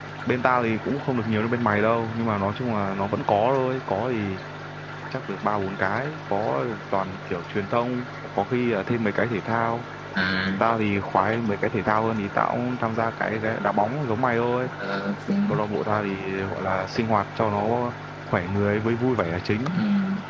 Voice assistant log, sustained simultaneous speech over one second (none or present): none